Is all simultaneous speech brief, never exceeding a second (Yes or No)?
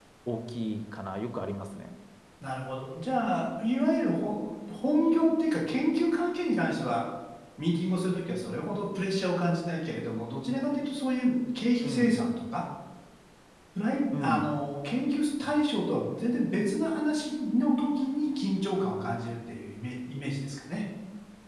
Yes